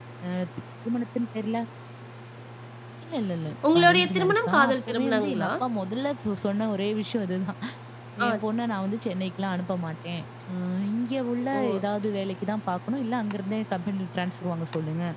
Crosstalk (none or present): present